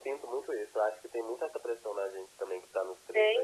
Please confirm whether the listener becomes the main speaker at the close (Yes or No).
No